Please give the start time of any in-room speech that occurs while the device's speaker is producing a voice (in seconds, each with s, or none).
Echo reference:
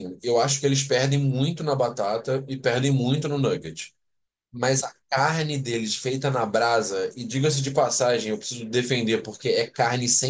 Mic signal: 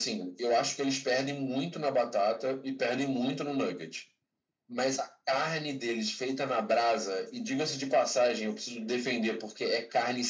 none